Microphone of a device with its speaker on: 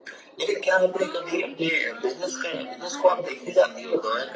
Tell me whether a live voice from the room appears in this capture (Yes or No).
Yes